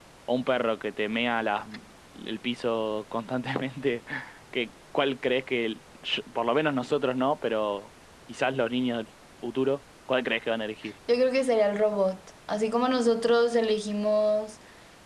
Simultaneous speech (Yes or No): No